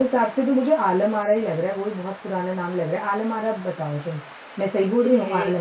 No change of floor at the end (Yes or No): No